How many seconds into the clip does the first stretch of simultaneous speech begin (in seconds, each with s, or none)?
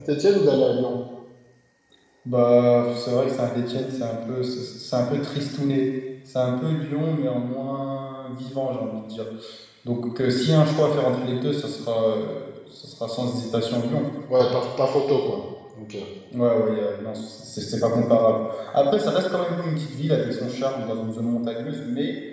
none